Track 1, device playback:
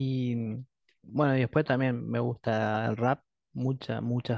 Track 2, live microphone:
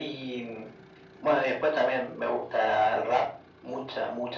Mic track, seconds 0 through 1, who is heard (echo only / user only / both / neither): echo only